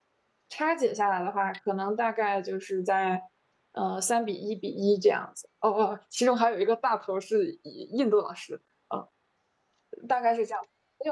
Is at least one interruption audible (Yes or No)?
No